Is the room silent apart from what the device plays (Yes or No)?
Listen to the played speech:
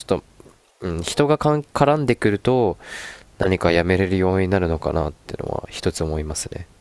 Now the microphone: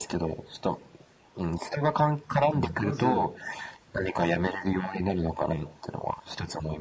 No